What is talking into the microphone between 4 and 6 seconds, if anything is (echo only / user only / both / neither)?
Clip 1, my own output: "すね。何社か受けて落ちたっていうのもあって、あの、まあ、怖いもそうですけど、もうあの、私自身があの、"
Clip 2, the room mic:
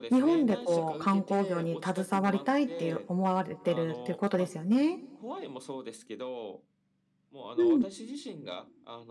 both